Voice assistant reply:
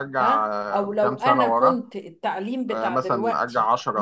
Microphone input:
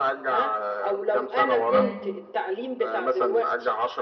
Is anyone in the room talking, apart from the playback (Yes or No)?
Yes